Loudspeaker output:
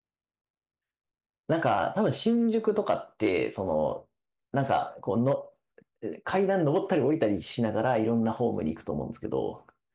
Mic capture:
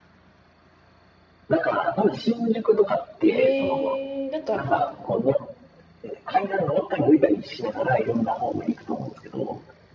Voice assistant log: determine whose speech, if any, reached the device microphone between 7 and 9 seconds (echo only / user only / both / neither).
echo only